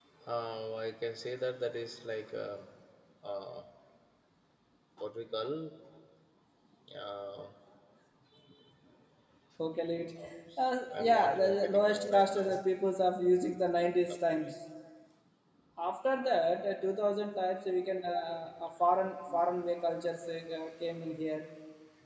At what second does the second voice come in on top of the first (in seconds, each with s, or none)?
11.0 s